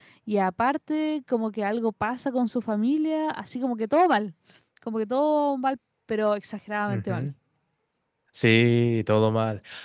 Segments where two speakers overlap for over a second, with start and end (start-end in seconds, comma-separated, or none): none